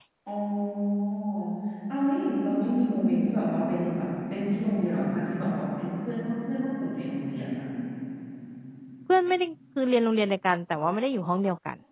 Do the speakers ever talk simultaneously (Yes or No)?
No